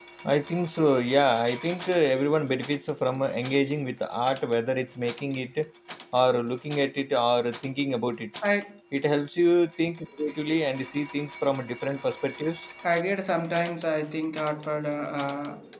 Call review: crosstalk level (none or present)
none